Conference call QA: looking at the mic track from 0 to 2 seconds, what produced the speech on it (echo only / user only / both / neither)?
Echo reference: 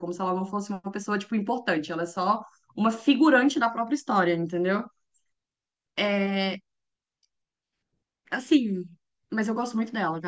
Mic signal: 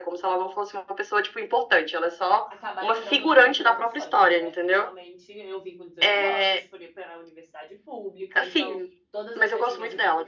echo only